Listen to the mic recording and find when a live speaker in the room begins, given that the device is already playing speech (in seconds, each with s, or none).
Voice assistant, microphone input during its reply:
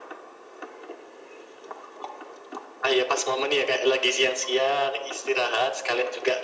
none